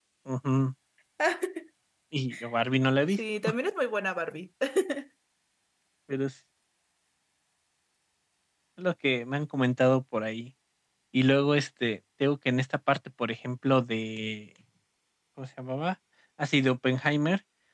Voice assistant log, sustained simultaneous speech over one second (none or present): none